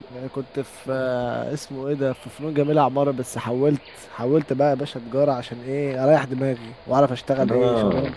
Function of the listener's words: taking over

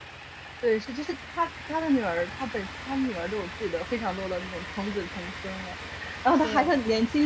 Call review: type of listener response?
listening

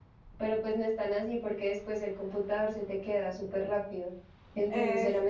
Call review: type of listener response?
listening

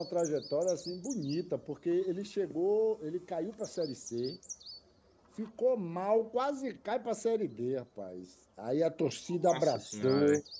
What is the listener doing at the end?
listening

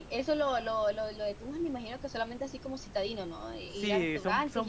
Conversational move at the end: taking over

